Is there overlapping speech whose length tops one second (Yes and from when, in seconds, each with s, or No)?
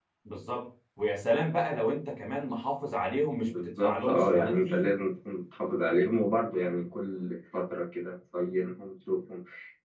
Yes, from 3.5 s